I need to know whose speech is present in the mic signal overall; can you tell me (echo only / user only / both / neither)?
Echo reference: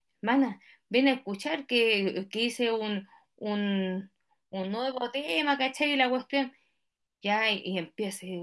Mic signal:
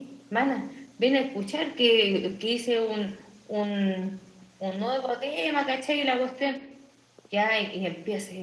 echo only